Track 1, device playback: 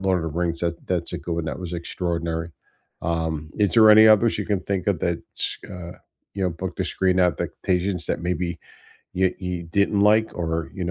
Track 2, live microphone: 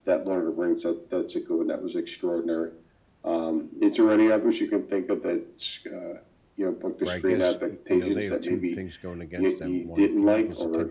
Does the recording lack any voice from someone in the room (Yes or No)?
No